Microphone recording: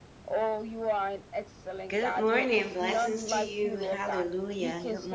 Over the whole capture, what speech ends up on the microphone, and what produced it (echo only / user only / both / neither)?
both